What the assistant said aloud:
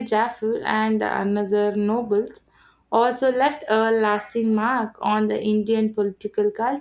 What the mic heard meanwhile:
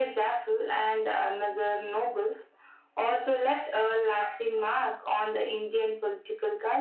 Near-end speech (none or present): none